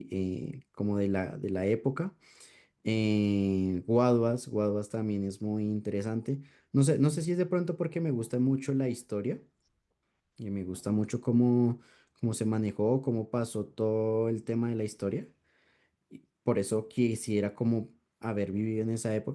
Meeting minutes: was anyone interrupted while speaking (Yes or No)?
No